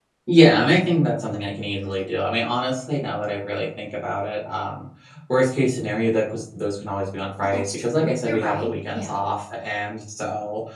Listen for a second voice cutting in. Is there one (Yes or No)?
Yes